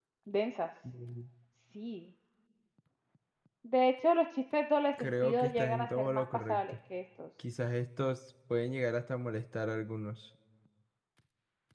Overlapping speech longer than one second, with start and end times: 5.0-6.6

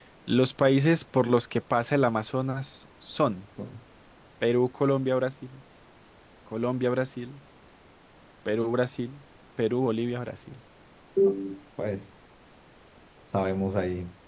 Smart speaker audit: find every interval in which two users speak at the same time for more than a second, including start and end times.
none

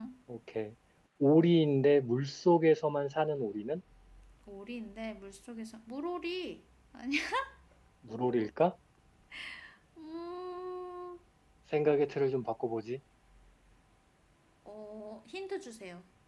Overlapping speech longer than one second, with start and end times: none

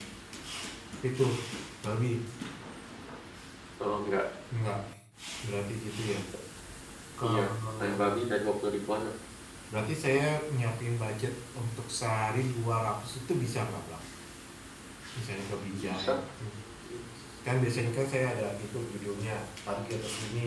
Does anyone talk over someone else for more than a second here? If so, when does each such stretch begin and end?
none

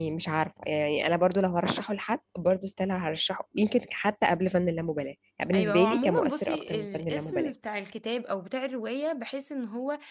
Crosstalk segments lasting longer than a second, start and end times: 5.5-7.5

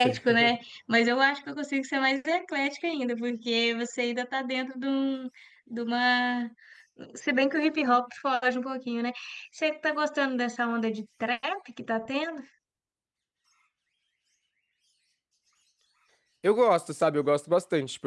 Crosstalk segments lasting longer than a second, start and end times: none

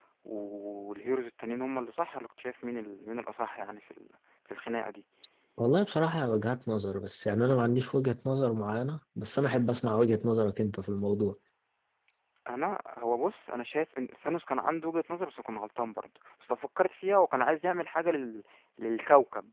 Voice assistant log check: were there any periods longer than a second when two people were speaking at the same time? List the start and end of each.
none

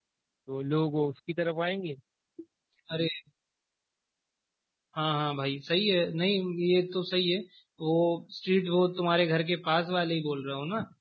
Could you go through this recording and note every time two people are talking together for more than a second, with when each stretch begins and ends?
none

